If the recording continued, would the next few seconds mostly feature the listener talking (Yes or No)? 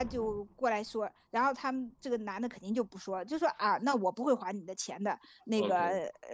No